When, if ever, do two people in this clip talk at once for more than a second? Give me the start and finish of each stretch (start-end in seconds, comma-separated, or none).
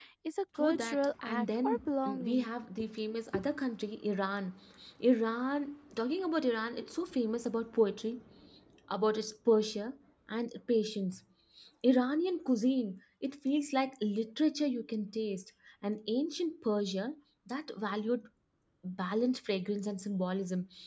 0.6-2.5